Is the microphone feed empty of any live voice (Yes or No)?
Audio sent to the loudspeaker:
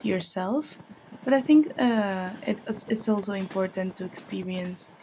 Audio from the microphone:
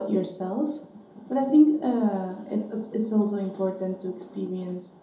Yes